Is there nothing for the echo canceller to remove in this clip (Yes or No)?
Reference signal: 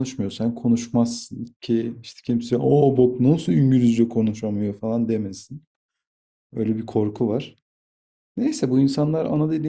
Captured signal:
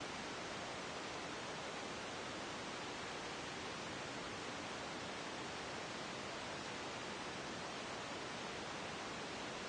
Yes